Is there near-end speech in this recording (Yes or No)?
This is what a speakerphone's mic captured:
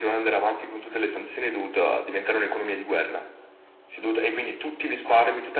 No